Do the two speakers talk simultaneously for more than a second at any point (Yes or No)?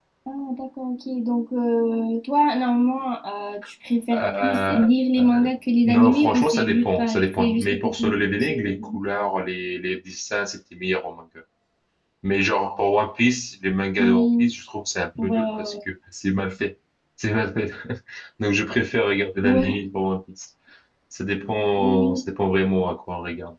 Yes